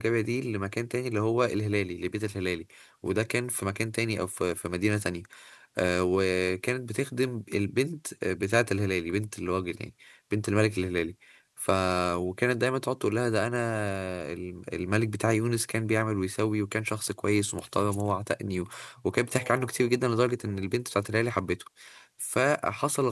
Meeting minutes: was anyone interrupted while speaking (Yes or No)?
No